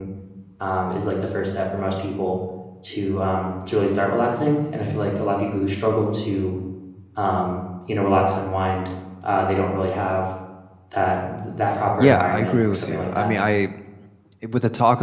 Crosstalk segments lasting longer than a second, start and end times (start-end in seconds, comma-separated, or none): 12.0-13.3